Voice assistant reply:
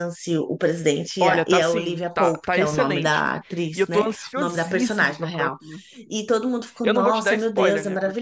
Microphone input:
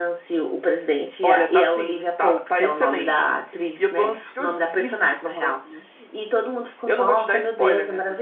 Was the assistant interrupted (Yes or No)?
No